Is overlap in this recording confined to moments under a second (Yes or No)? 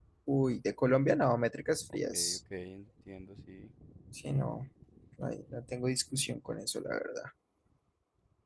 Yes